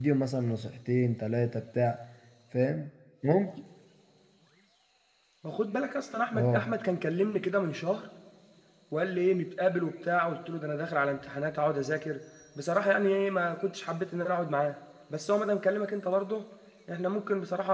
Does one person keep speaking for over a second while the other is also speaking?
No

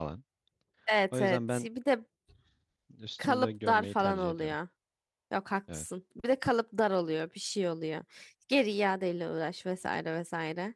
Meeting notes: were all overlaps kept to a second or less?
No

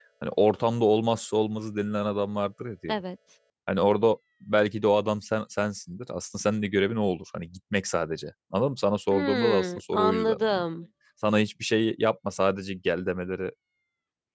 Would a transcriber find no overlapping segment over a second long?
No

